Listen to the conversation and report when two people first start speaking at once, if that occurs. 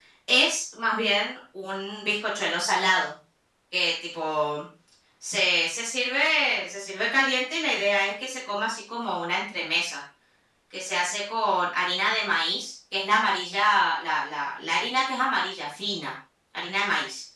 none

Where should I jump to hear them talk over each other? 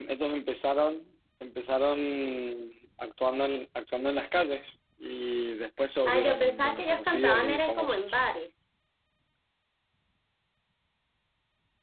6 s

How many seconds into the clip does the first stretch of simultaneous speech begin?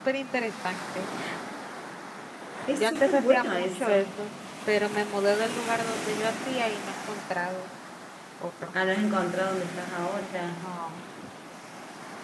3 s

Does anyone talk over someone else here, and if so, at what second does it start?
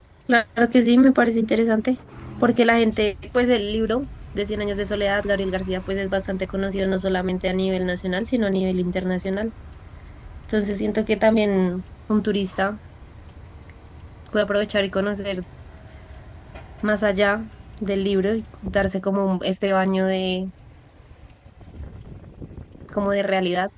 none

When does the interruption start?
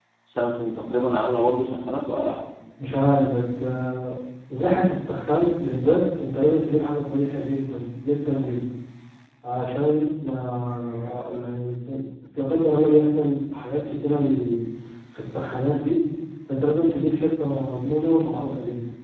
none

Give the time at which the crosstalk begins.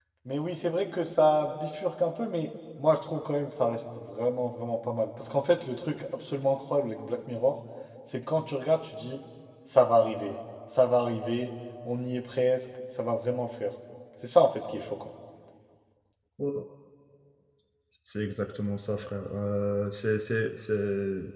none

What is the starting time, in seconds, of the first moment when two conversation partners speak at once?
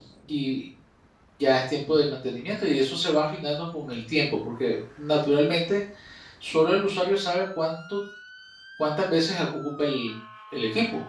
none

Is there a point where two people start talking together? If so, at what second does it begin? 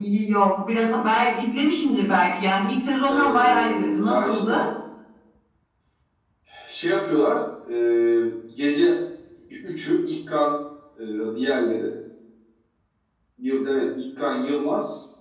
3 s

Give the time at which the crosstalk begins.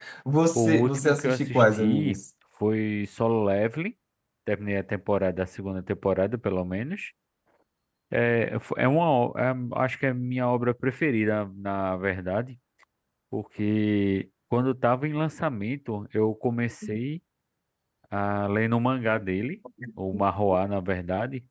1 s

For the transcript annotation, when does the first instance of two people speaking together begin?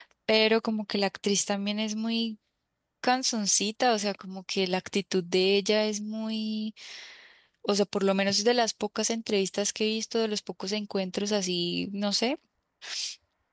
none

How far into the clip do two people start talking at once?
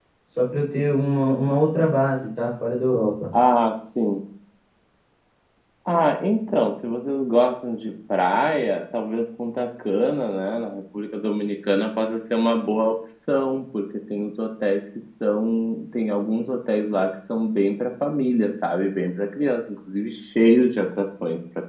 none

